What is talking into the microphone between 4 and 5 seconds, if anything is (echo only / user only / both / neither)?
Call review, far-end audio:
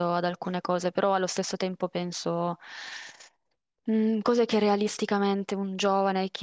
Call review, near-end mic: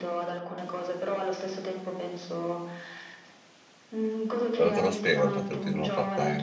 both